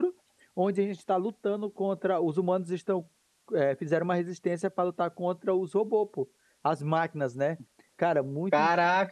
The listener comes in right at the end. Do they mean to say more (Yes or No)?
Yes